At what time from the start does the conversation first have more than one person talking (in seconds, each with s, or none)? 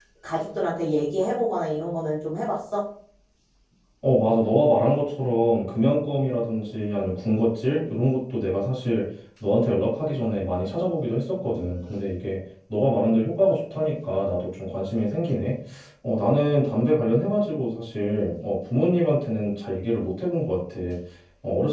none